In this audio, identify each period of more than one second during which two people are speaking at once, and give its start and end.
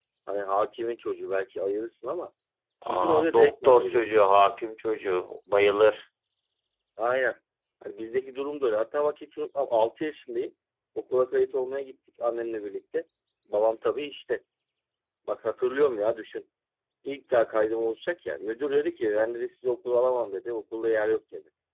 2.9-4.2

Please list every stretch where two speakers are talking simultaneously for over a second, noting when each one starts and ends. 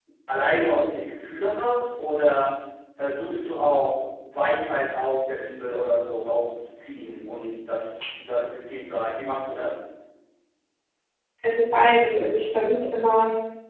none

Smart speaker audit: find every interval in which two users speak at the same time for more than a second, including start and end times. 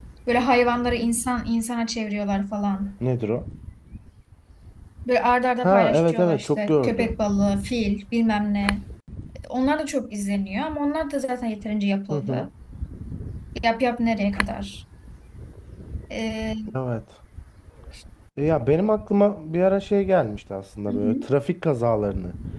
5.6-7.1

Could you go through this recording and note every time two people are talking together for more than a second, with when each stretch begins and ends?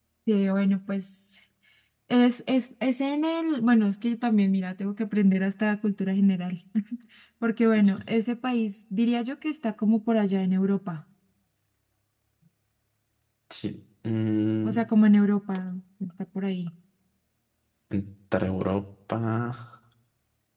none

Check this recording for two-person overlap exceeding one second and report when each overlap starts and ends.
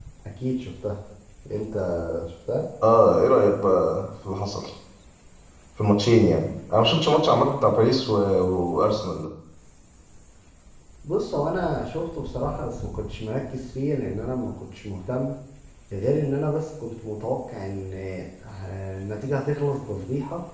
none

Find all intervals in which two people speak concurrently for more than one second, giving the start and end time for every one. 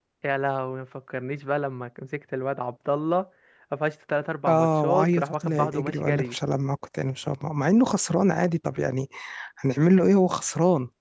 4.5-6.4

